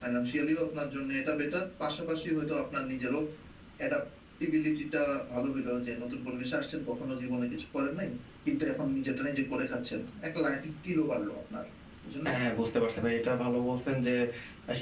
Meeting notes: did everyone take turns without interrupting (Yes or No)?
Yes